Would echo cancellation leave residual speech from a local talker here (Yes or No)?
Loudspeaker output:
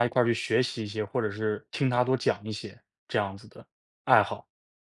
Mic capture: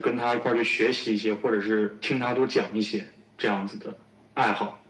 No